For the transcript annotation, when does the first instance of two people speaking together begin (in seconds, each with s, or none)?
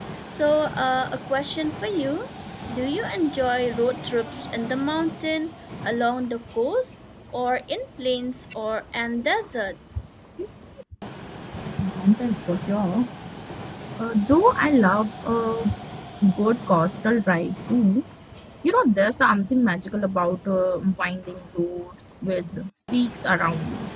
none